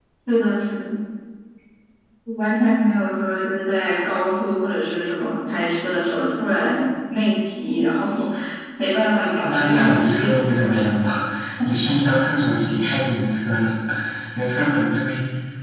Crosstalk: present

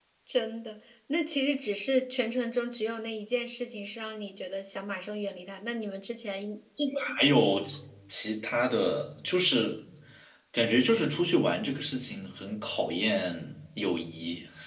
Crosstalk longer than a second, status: none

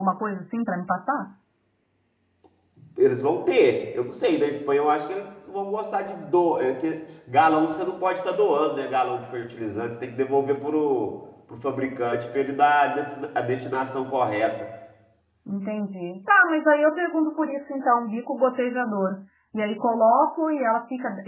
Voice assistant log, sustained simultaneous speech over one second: none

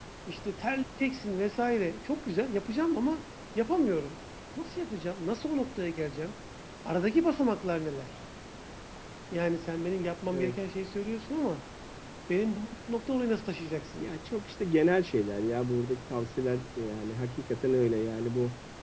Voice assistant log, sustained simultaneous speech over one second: none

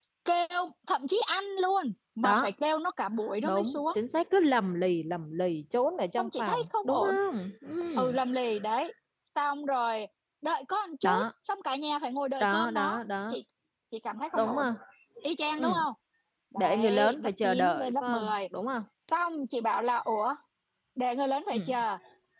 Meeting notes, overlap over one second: present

